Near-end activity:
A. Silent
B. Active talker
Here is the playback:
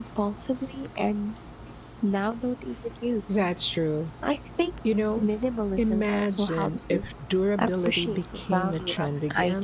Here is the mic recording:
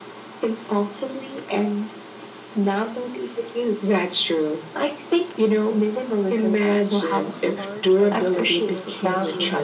B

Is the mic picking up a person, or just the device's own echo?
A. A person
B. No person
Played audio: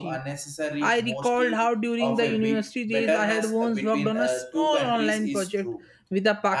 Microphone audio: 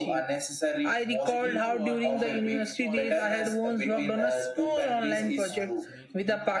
A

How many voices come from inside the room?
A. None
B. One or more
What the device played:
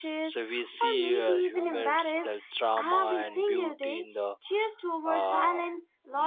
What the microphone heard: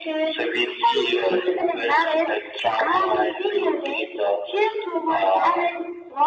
A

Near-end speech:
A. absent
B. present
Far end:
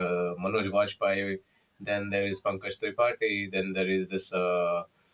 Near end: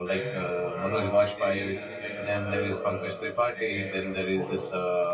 B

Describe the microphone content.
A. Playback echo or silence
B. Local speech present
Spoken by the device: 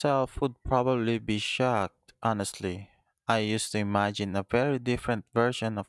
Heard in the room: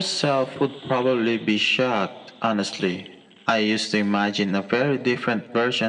A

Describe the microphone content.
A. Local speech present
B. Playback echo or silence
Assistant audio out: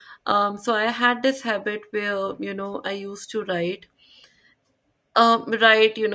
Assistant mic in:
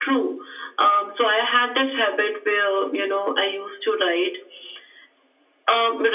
B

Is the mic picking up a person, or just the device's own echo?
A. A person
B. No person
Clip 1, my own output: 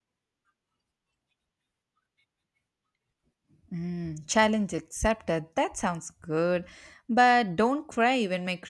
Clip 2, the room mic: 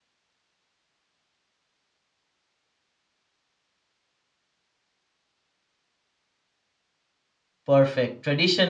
A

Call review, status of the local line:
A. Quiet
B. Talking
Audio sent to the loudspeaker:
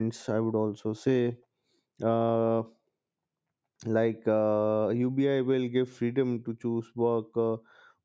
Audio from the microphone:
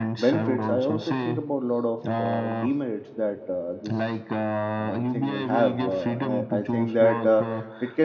B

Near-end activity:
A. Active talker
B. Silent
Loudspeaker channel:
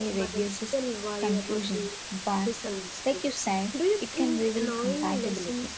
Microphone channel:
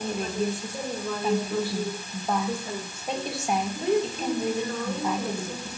B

